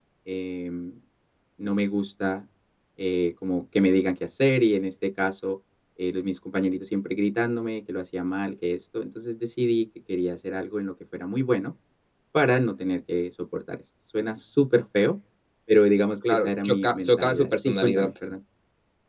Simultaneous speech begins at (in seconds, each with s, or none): 16.3 s